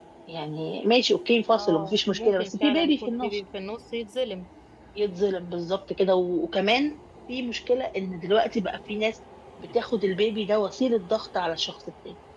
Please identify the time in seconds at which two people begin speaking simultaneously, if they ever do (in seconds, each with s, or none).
1.6 s